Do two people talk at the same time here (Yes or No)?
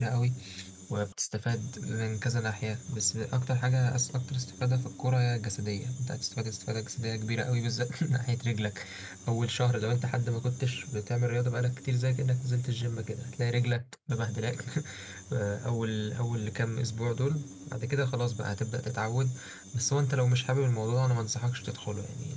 No